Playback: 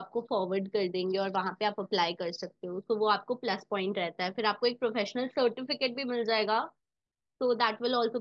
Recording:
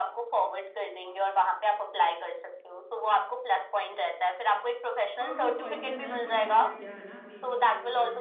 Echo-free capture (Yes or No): No